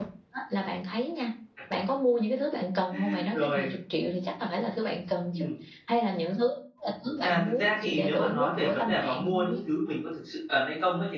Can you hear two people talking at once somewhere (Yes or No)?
Yes